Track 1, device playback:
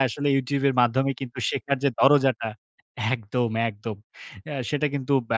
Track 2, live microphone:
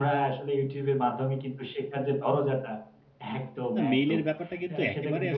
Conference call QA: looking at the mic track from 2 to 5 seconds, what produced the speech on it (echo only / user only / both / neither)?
both